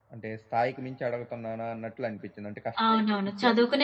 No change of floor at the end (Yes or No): No